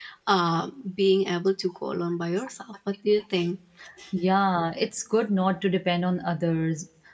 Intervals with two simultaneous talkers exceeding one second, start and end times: none

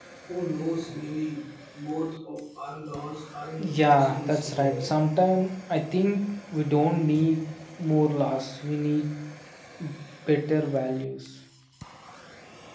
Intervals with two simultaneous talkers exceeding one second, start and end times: 3.6-4.9

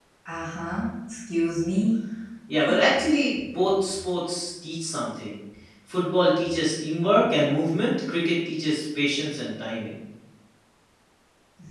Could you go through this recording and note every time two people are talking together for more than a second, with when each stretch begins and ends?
none

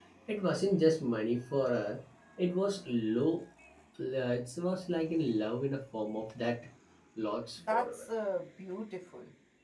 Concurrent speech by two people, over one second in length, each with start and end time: none

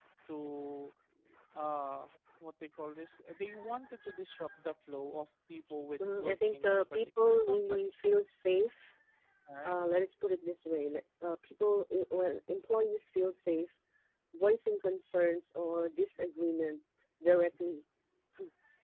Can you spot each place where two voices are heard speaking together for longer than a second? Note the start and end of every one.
6.0-7.9

